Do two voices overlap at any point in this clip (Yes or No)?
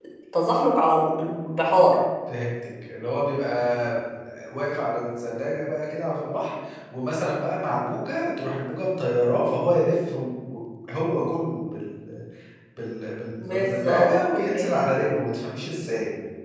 Yes